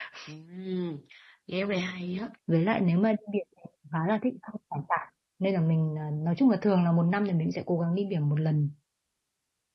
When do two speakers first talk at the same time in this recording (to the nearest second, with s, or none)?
none